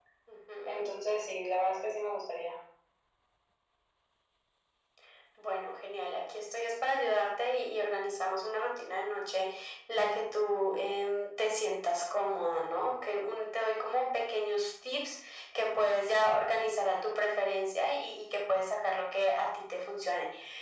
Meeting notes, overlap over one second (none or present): none